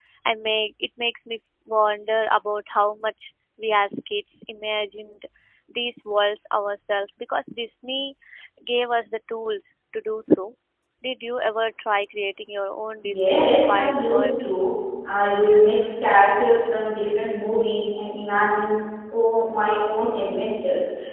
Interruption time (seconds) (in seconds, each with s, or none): 13.0 s